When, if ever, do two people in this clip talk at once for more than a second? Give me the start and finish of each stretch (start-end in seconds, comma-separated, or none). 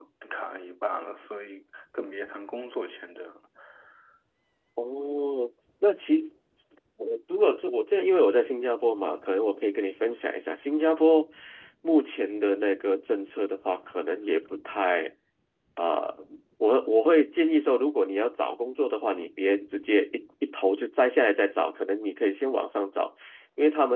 none